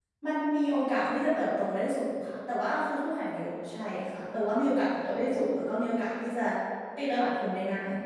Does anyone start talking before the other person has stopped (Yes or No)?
No